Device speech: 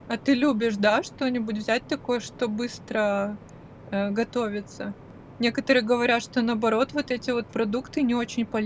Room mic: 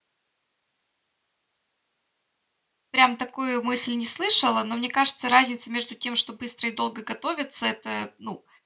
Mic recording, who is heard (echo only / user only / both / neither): user only